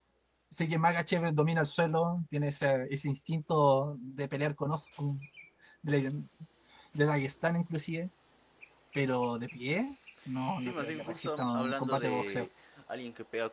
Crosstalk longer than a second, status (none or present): present